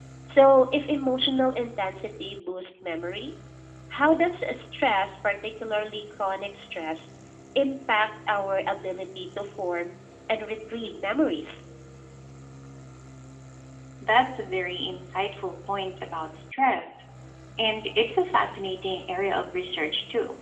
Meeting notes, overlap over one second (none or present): none